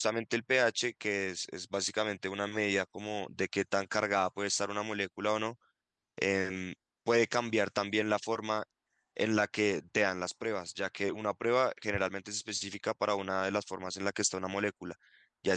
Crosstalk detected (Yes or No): No